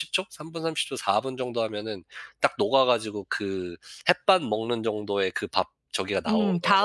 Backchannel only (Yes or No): No